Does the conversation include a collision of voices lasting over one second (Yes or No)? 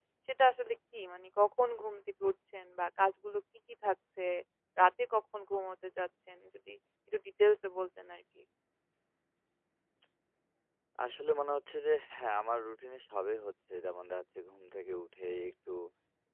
No